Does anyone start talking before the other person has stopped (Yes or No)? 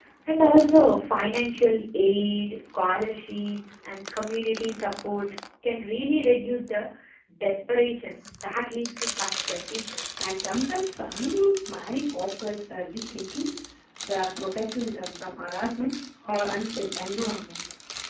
No